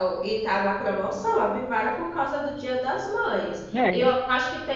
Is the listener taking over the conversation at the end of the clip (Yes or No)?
No